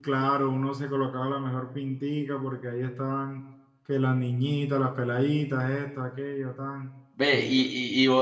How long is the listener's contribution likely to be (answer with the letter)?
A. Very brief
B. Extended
B